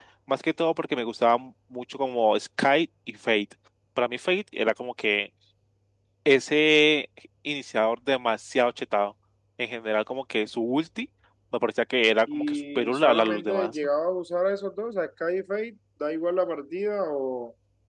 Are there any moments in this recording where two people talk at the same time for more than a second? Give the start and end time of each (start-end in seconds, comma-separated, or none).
12.3-13.8